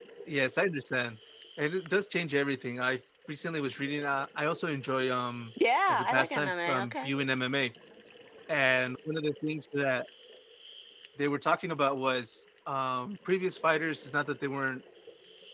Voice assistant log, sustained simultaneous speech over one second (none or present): present